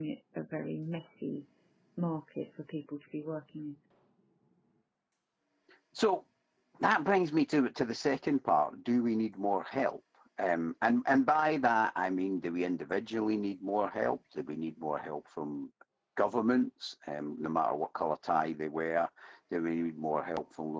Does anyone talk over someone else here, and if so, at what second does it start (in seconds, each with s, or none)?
none